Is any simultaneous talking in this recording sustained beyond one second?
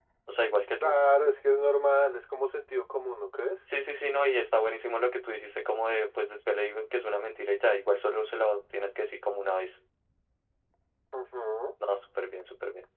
No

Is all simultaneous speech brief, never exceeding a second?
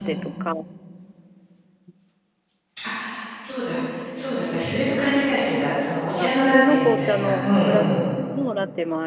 No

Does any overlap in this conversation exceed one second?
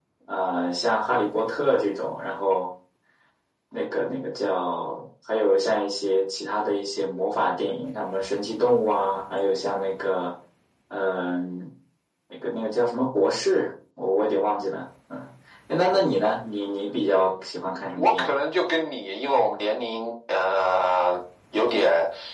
No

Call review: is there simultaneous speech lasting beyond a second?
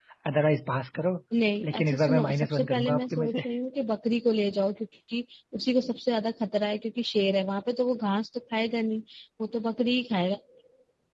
Yes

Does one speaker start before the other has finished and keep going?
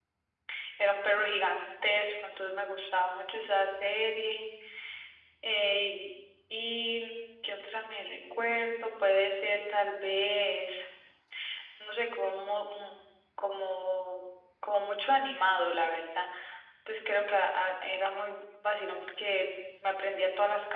No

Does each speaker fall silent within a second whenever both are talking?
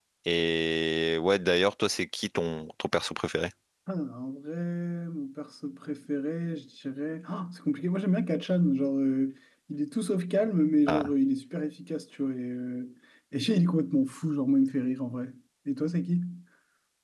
Yes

